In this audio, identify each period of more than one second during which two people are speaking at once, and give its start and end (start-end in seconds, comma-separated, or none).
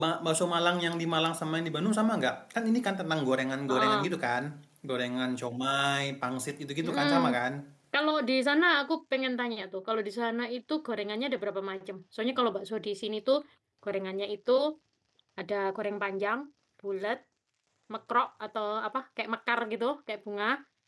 none